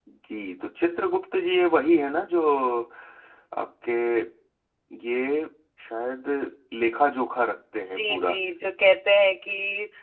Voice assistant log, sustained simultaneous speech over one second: none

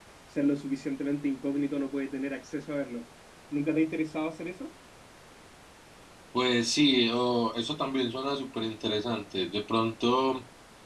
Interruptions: none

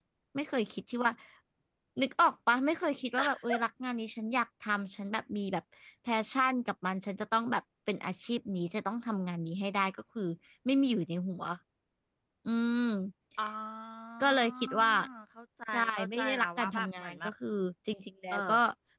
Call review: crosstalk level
present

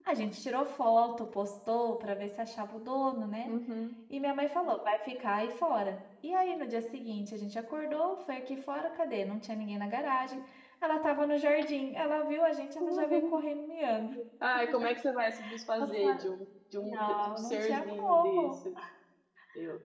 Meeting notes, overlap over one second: present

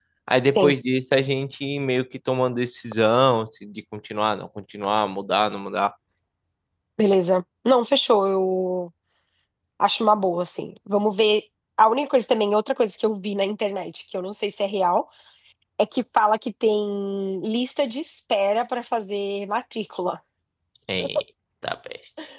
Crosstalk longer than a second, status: none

